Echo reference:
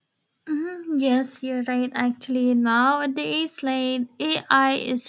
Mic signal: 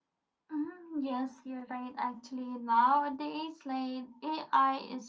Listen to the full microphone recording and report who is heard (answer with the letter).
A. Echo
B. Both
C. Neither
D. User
A